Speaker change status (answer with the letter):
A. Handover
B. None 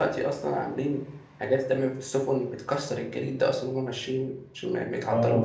A